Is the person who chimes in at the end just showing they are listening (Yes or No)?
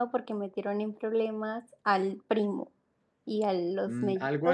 No